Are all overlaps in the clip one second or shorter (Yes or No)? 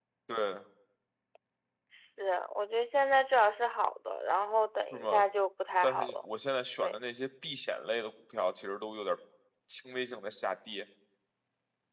Yes